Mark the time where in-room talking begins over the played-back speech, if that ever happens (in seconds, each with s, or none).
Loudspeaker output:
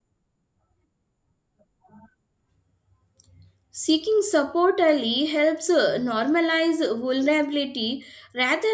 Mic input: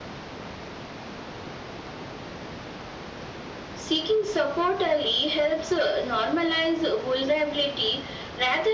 none